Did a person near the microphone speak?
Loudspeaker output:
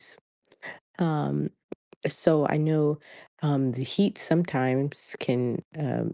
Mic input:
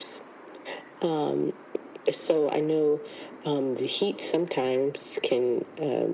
No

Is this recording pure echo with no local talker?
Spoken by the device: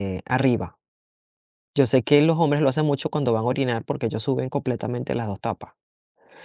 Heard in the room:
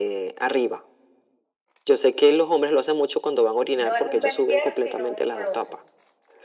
No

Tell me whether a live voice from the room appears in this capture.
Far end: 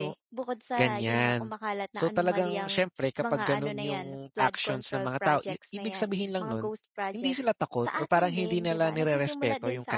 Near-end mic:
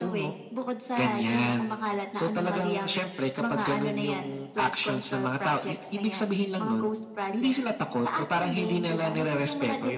No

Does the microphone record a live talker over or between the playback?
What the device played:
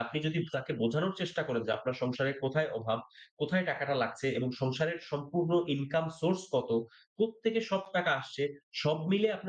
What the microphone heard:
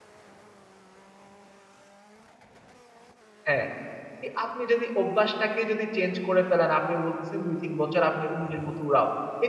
Yes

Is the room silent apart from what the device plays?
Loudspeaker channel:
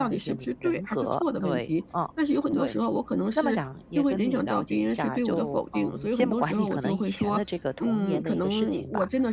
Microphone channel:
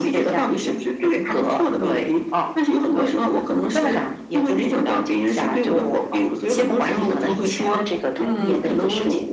Yes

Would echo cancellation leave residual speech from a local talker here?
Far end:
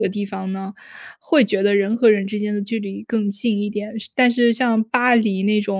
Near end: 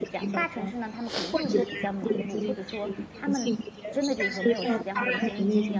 Yes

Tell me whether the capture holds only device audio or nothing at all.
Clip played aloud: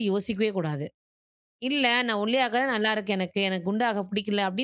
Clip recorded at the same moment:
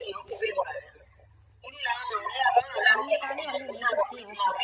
No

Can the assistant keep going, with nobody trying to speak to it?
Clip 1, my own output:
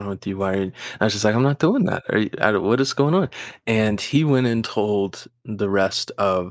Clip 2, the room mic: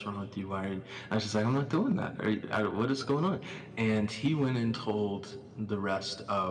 Yes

